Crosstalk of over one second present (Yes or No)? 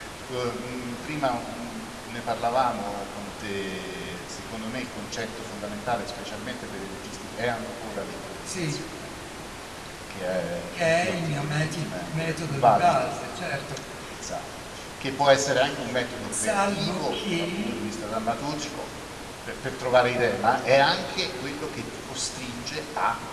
Yes